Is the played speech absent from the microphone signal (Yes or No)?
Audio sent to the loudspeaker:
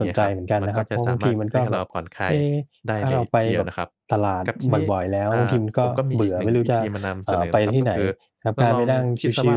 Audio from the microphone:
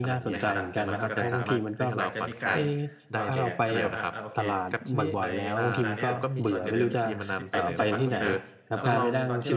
No